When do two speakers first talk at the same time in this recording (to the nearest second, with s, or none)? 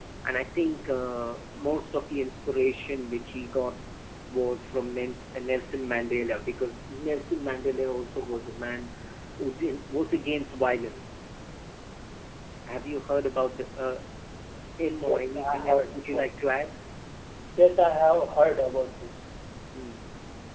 15 s